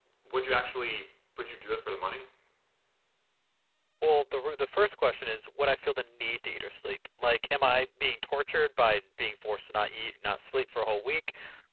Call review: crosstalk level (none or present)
none